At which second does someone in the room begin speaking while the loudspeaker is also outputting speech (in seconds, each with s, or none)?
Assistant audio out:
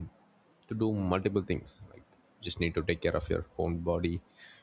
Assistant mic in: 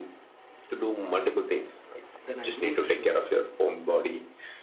2.2 s